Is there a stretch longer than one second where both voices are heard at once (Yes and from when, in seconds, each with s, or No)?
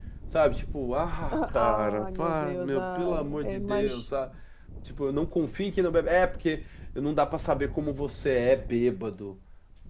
Yes, from 1.3 s